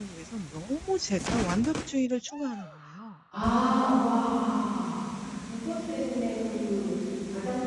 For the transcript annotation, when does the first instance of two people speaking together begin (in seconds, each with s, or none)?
none